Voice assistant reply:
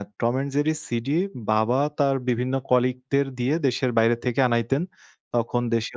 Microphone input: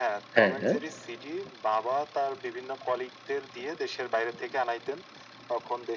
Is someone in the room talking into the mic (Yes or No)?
Yes